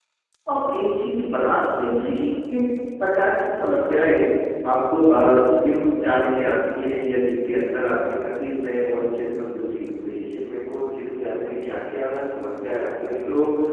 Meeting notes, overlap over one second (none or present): none